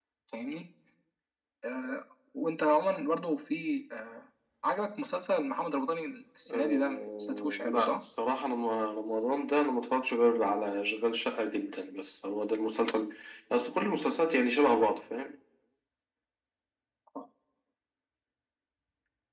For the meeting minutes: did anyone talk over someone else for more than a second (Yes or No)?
Yes